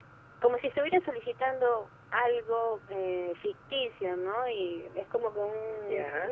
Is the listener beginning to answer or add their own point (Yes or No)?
No